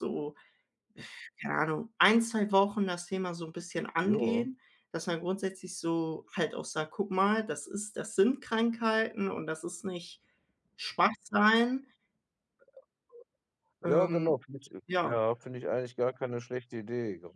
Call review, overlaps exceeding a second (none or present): none